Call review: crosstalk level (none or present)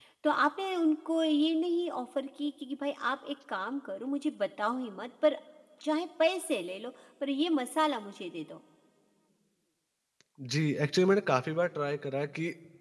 none